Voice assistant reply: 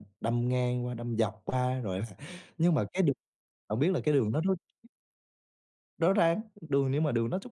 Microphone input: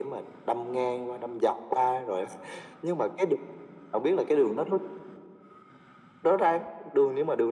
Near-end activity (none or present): none